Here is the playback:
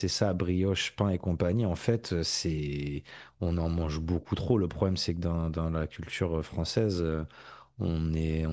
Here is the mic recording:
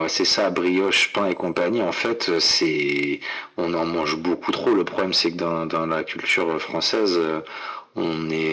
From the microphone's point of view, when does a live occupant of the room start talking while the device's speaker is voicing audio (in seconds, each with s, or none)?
none